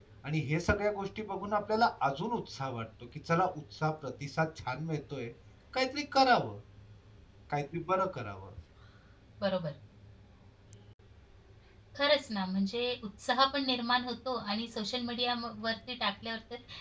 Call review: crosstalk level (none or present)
none